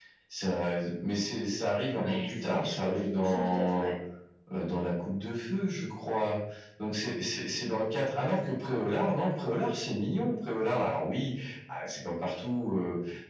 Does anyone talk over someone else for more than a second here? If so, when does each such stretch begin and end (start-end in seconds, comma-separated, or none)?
2.0-3.9